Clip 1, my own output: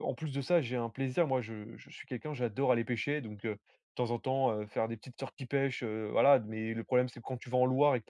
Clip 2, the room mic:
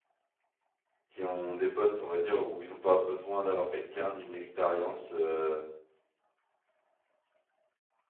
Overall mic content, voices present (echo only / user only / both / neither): user only